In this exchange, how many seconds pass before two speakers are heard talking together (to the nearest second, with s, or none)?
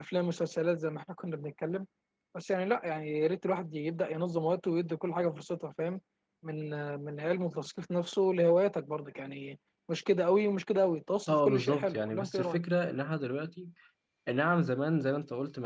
11 s